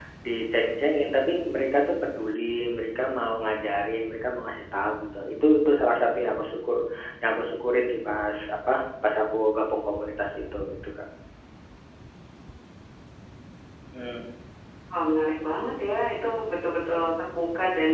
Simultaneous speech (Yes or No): No